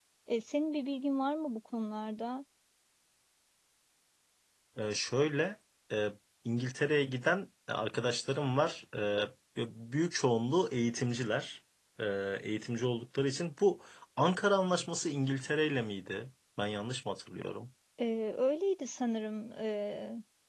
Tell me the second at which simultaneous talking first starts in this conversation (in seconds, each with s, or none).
none